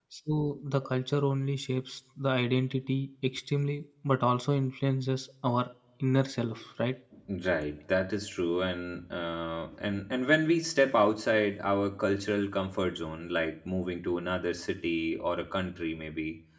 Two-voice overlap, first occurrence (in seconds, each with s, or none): none